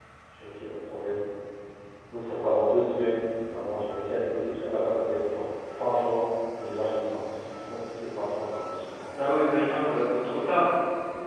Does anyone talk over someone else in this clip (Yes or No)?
No